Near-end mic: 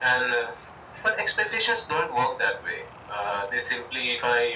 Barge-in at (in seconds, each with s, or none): none